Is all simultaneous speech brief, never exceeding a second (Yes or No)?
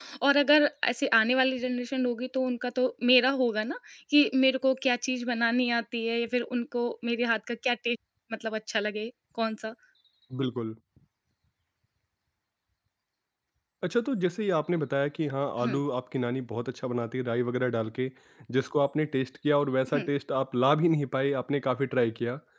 Yes